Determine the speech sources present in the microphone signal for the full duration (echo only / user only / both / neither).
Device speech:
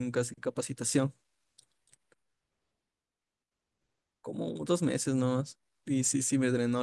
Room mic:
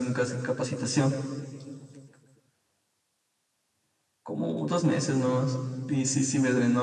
echo only